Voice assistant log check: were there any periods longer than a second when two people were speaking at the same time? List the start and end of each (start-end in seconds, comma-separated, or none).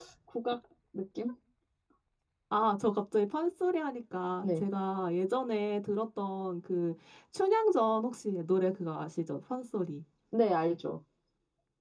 none